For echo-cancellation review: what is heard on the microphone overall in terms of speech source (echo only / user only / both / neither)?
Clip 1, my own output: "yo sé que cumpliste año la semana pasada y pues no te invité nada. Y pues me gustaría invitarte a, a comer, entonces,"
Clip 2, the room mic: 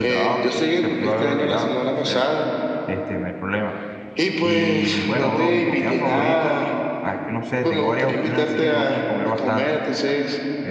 both